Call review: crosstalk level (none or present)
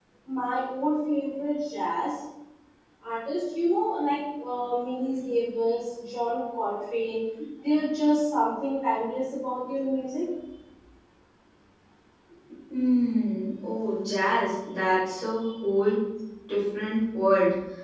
none